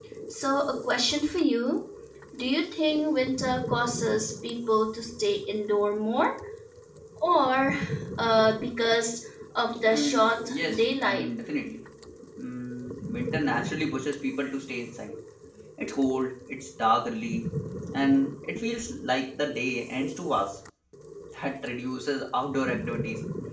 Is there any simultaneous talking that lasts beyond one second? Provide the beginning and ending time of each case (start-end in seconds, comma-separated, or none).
9.9-11.3